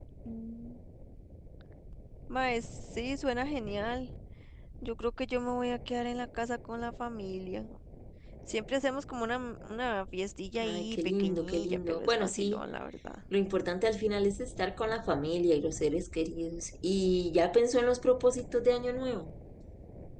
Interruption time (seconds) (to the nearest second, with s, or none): 11 s